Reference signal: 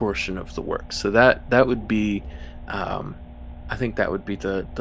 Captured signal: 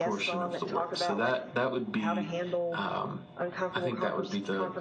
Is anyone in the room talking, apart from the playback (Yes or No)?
Yes